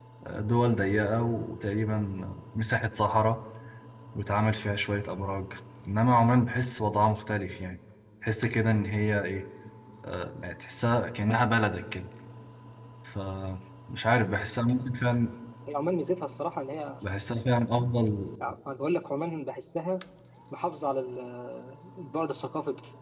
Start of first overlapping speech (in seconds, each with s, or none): none